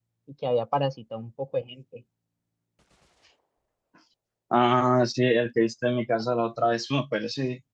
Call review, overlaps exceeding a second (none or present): none